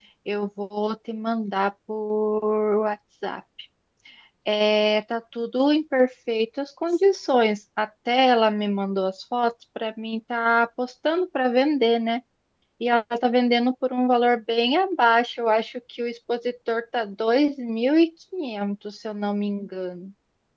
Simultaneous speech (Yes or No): No